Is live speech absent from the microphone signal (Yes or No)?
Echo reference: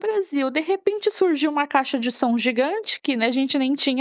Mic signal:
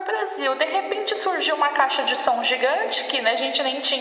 Yes